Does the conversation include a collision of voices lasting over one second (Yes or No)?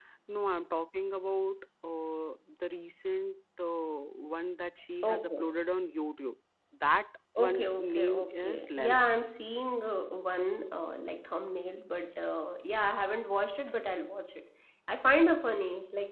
Yes